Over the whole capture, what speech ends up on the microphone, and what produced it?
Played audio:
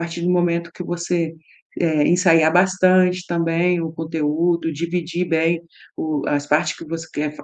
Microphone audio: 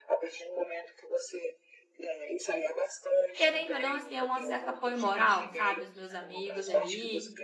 both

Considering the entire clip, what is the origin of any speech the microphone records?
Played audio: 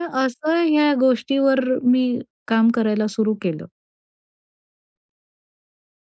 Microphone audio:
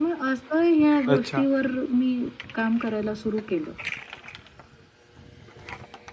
both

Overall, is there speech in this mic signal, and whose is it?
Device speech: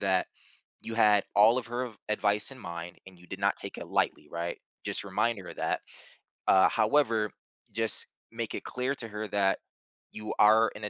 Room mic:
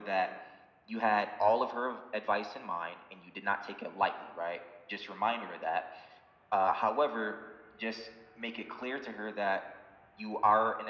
echo only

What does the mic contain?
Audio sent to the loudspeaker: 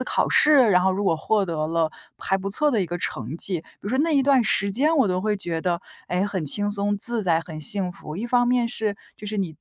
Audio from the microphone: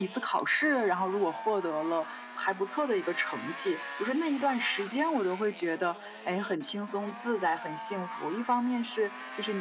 echo only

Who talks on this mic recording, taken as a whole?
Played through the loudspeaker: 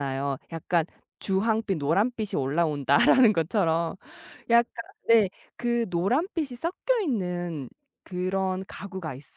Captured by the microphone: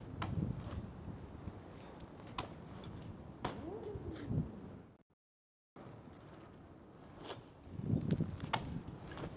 neither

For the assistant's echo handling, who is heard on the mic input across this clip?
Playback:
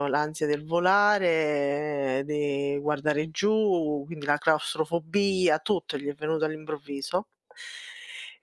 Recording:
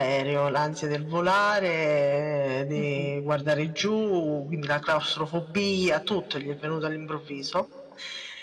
both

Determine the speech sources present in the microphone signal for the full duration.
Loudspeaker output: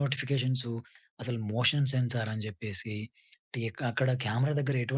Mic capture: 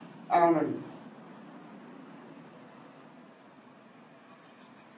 user only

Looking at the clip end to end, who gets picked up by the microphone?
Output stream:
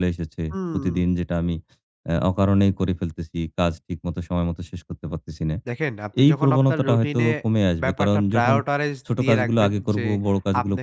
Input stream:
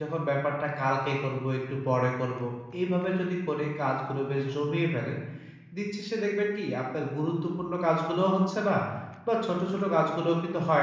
user only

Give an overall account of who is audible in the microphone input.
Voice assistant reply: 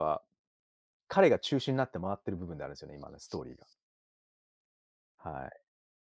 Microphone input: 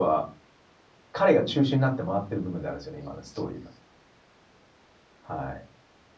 echo only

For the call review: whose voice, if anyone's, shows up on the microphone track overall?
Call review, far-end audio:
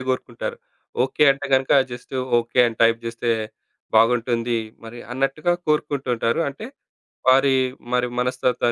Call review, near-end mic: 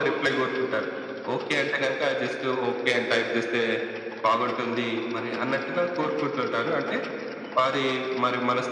echo only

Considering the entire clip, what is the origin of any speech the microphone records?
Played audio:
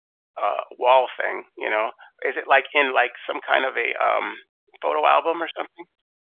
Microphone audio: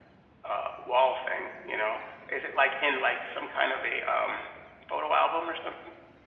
echo only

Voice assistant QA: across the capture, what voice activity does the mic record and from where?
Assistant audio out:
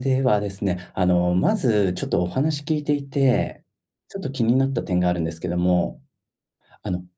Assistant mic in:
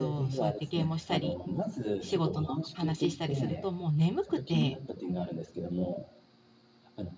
both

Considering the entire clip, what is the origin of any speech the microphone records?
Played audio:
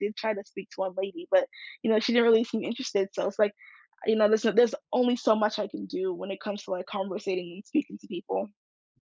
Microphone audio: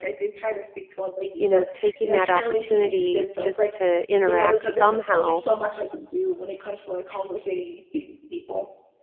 both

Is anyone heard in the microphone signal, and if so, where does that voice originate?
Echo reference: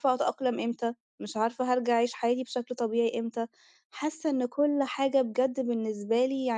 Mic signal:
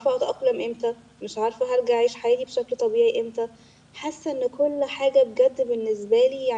echo only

